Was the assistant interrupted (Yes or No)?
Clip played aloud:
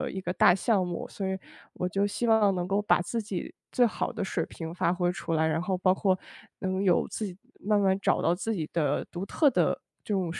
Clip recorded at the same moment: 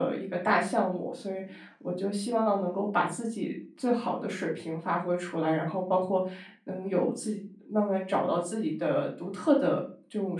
No